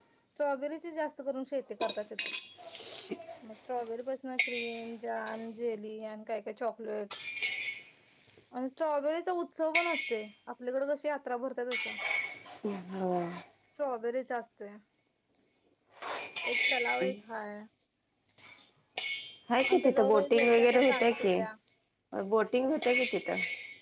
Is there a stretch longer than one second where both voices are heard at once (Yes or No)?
Yes